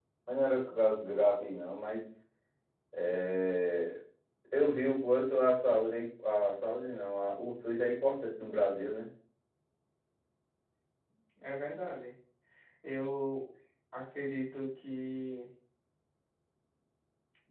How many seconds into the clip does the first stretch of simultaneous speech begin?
none

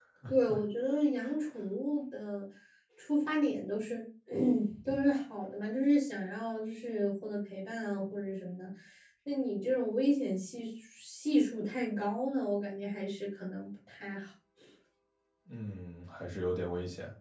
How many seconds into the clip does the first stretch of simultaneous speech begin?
none

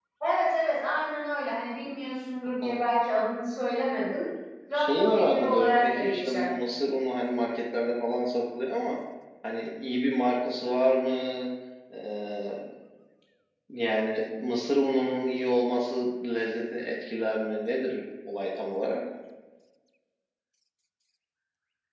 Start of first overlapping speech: 4.7 s

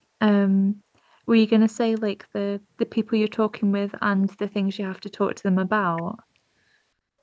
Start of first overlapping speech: none

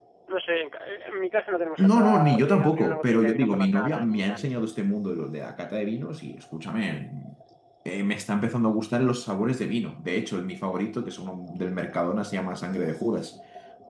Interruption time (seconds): 1.8 s

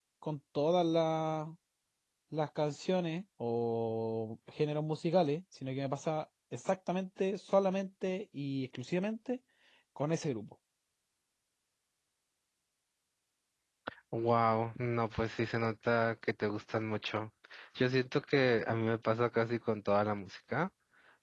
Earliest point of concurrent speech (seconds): none

